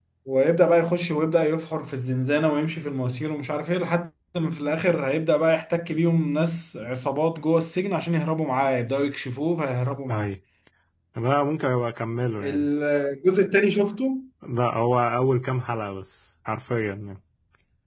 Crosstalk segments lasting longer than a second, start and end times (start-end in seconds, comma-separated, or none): none